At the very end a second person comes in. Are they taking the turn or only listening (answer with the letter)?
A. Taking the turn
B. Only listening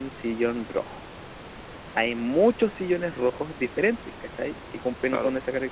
B